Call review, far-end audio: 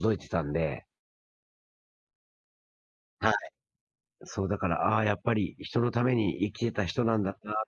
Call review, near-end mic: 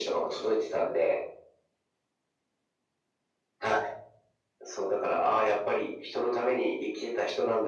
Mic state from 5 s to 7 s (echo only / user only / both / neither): echo only